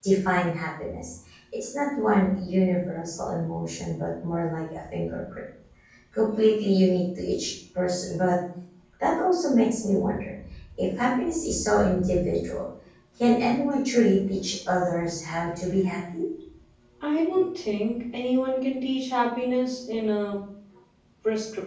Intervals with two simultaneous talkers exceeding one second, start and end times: none

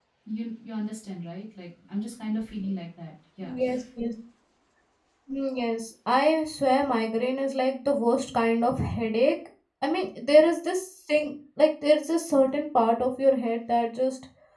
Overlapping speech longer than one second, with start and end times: none

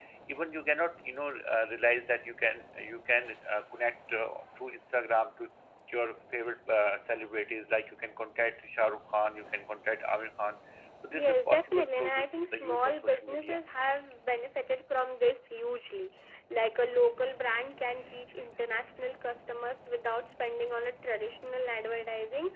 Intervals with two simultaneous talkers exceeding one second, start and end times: 11.1-13.6

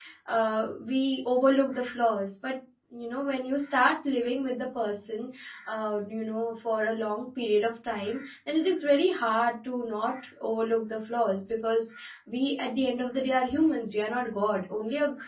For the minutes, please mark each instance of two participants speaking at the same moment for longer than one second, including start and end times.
none

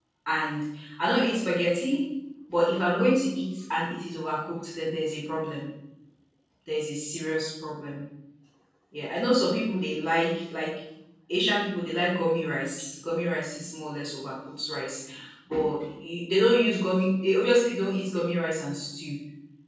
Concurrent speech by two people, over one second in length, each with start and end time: none

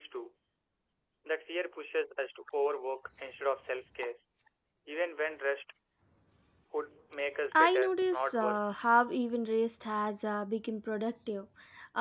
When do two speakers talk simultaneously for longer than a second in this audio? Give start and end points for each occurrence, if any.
7.5-8.8

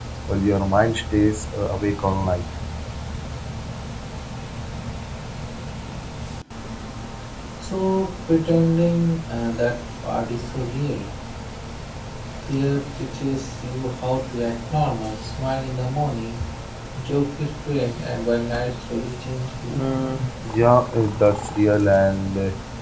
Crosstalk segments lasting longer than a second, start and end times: none

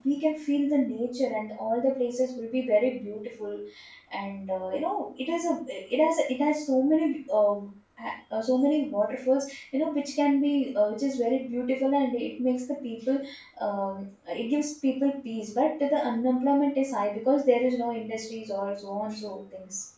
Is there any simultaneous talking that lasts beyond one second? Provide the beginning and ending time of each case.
none

